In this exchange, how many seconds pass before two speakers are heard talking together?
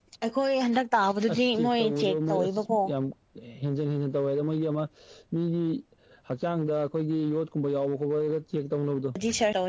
1 s

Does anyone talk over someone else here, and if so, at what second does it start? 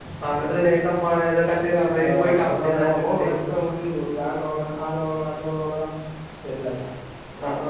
2 s

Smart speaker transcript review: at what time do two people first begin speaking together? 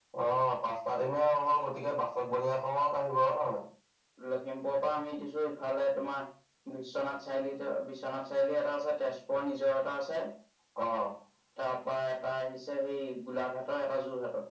none

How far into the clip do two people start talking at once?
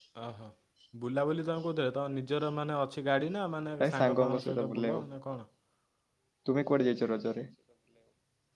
4 s

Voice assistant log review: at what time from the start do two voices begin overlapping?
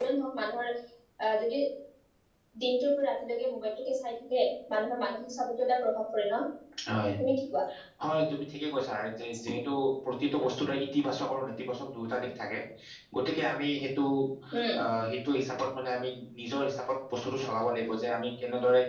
none

